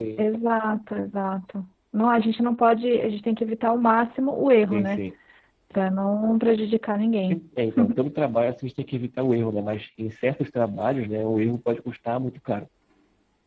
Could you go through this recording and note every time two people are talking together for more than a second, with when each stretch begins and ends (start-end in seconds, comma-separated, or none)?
none